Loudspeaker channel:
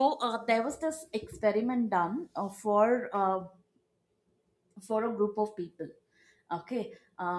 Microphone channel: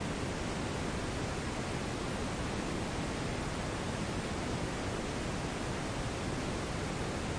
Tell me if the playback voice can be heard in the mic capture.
No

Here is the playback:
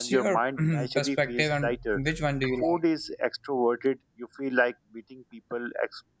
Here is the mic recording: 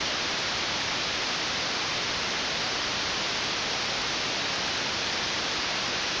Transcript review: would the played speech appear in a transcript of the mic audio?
No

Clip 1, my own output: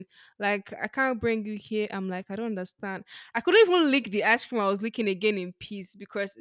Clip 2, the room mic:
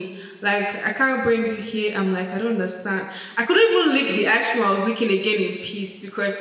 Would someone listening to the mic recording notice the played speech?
Yes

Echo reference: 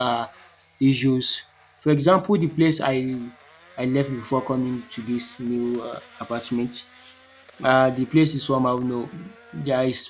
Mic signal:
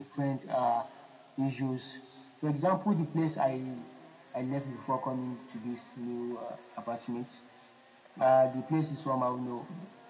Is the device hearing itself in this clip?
Yes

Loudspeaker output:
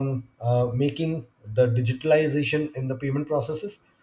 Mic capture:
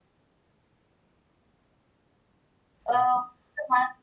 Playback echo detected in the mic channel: No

